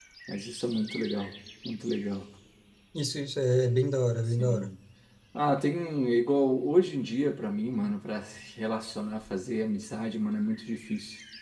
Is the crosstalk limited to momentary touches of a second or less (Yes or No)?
Yes